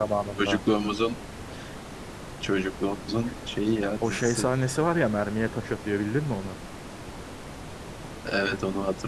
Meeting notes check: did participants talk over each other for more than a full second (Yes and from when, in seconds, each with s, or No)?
No